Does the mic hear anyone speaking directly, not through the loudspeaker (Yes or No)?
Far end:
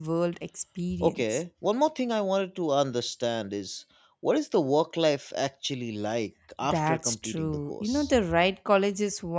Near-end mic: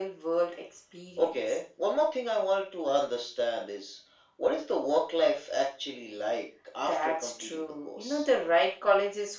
No